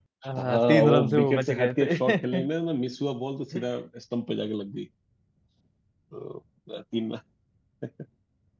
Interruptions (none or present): present